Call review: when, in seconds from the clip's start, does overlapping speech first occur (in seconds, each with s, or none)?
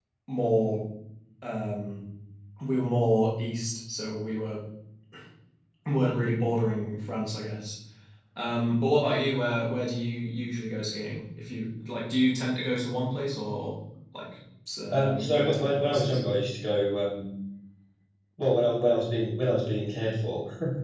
14.9 s